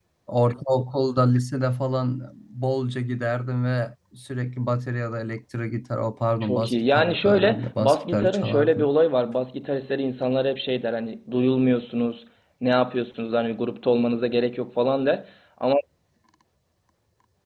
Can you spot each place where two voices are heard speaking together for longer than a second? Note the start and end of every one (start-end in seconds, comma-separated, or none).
6.4-8.9